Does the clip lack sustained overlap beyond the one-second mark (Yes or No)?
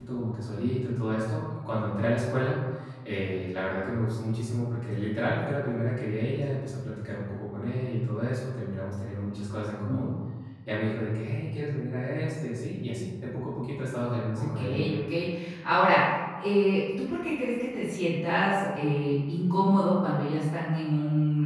Yes